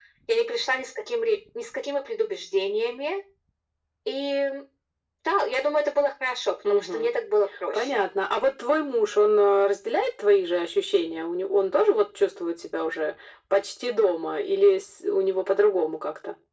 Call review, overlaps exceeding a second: none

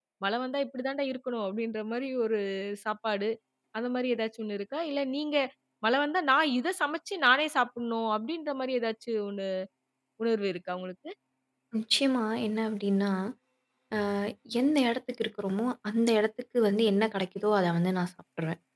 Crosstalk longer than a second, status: none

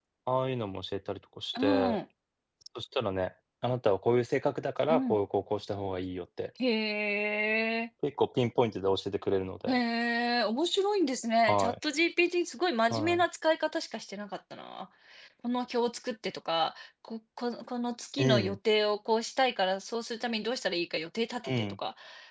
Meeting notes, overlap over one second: none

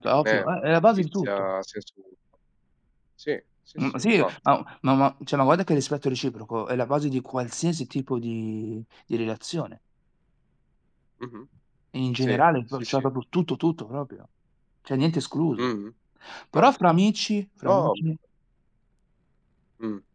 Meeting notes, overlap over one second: present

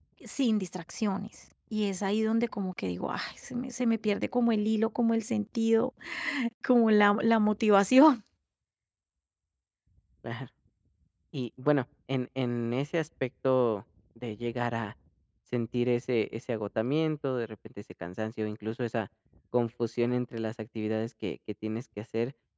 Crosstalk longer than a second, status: none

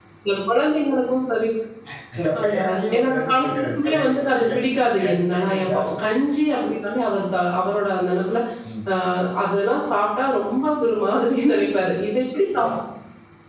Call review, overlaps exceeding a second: present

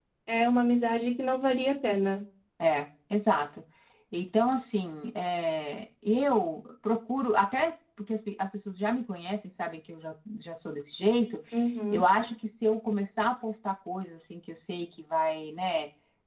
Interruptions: none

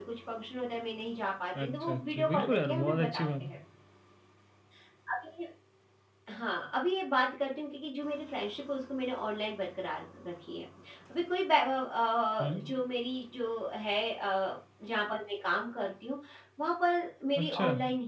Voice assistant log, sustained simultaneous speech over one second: present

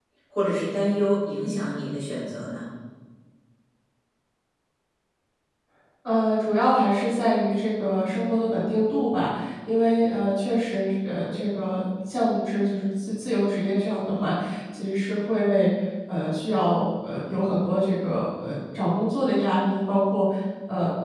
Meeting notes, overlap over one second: none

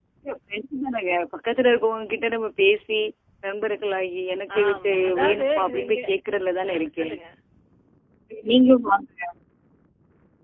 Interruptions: present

